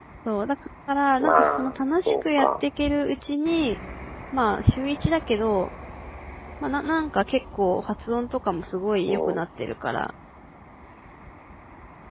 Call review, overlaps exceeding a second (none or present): present